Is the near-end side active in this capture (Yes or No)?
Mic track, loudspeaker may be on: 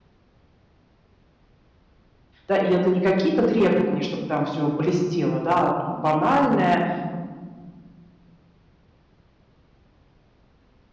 Yes